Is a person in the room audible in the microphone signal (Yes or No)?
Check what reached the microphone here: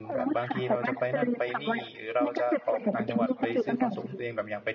Yes